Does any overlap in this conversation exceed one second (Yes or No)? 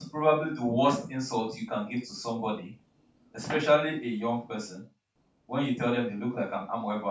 No